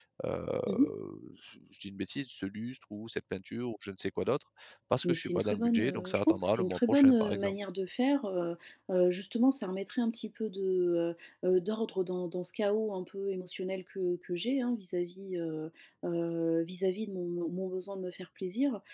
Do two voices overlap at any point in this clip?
Yes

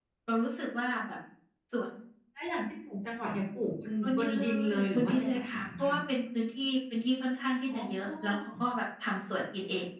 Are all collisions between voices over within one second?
No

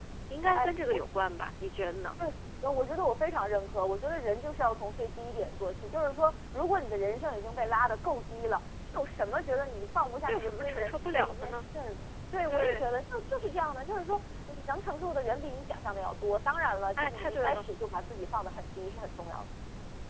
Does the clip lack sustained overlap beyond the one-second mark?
No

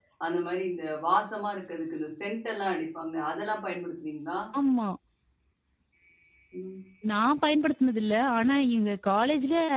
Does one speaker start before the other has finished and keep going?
No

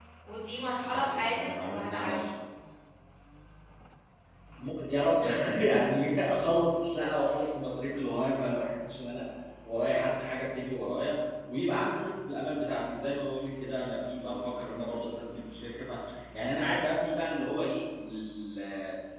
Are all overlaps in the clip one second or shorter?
No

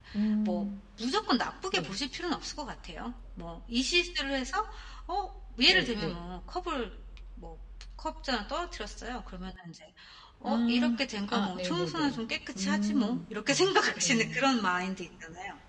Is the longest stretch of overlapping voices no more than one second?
No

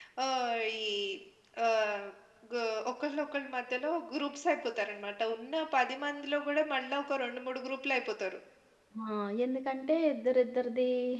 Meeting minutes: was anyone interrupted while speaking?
No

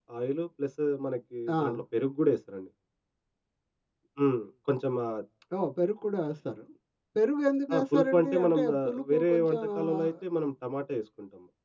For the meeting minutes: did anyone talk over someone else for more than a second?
Yes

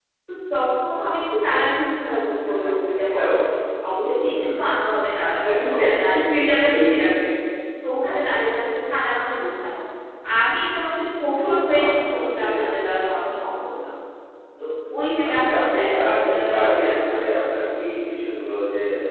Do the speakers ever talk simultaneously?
Yes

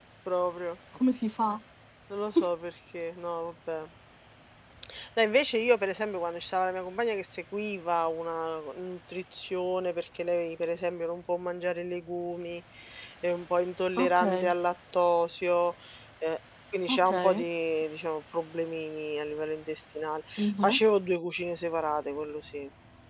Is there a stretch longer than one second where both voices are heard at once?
No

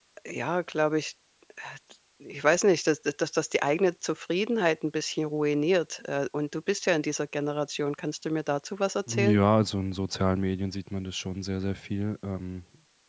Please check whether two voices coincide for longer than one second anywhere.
No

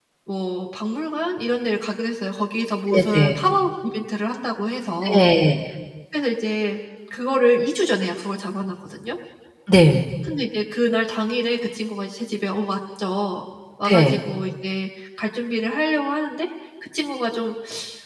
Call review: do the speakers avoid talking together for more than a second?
Yes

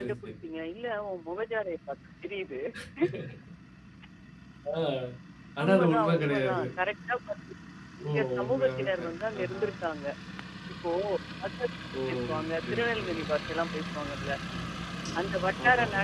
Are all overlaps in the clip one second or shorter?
No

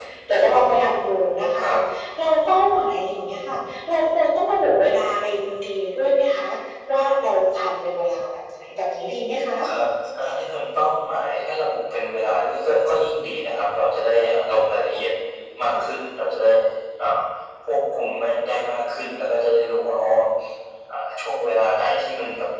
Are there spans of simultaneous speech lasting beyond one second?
No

